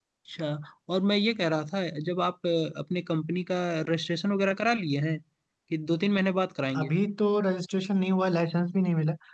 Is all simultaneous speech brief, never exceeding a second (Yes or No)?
Yes